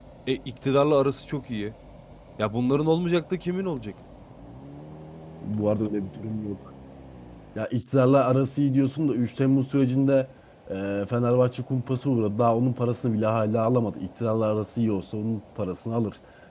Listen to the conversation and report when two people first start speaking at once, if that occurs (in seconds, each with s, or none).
none